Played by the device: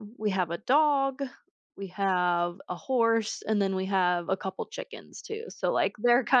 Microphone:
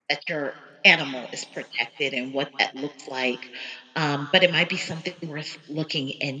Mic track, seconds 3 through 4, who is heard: user only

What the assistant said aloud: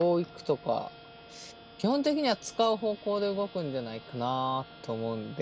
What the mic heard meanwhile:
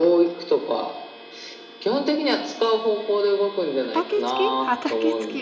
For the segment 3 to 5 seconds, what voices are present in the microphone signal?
both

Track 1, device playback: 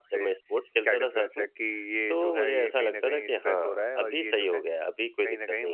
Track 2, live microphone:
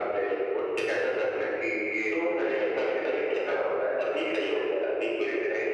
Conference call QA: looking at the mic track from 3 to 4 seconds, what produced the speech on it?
echo only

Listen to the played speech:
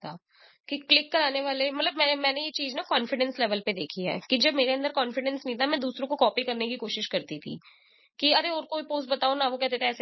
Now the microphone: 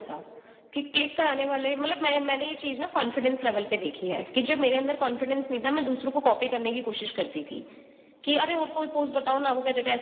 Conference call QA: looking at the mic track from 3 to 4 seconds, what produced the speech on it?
echo only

